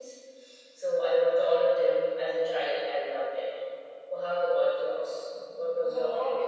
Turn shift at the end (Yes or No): Yes